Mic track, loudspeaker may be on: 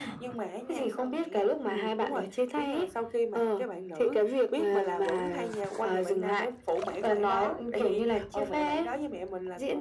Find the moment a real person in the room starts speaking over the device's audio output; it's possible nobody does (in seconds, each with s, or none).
none